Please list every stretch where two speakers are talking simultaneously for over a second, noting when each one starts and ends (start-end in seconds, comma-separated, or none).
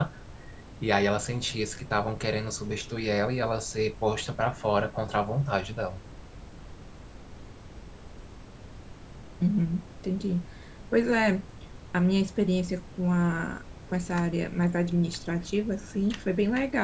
none